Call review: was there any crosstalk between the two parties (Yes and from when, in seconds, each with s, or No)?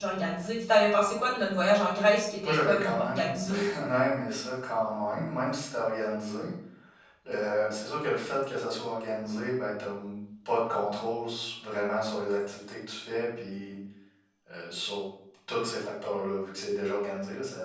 Yes, from 2.4 s